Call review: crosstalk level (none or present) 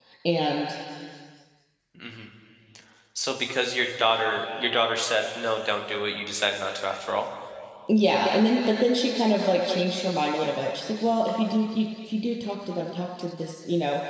none